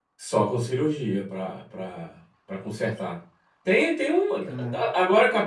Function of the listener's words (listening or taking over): listening